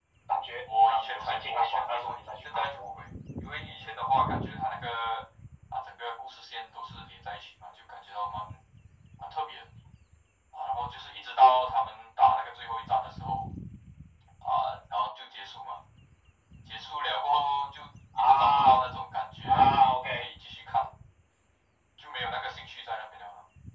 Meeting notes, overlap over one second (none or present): present